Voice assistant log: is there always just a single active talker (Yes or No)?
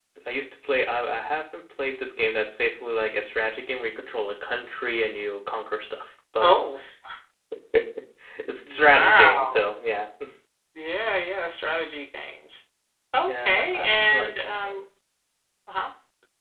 No